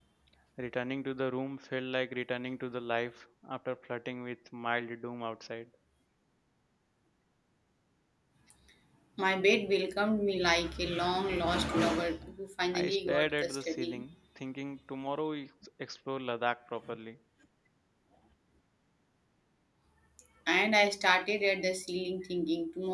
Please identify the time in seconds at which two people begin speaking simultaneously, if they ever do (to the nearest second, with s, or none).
13 s